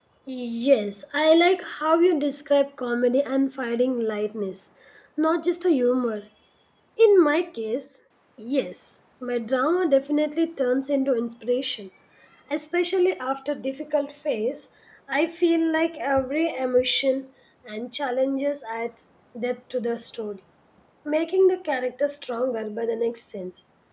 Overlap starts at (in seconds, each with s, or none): none